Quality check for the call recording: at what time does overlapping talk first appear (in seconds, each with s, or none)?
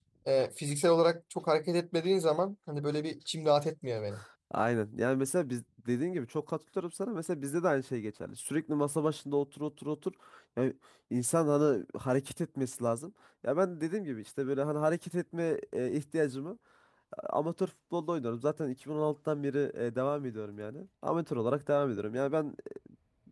none